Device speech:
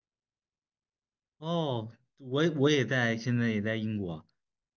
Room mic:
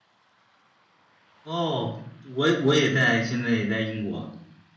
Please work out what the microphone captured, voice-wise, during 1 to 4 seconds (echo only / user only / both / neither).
echo only